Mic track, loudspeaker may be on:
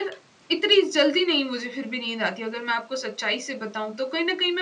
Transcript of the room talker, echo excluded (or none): none